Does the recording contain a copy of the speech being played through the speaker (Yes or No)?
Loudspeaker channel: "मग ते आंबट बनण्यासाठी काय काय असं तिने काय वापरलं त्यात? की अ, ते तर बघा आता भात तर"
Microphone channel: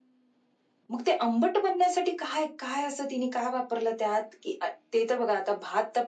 Yes